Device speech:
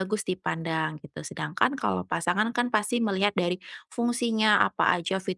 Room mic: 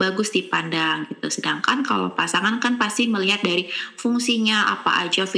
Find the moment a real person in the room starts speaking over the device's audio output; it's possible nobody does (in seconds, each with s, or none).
none